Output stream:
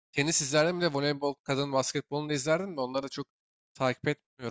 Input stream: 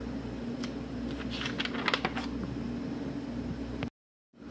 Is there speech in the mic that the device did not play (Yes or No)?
No